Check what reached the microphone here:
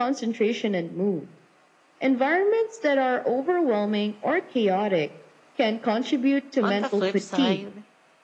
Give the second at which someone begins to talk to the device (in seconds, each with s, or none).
6.6 s